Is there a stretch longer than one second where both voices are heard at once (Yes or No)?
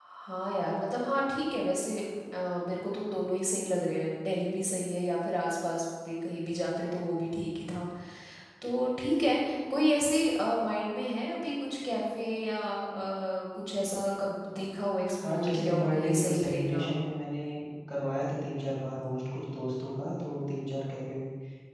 Yes